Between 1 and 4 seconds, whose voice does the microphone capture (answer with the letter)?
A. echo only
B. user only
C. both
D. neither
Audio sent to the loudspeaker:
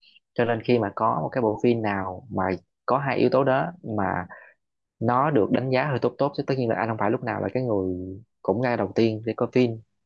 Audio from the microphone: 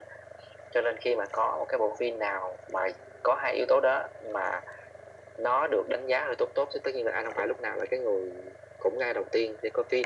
A